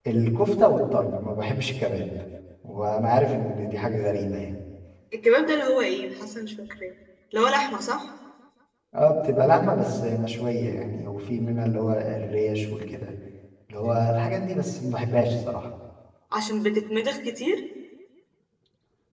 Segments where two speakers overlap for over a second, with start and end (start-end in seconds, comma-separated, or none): none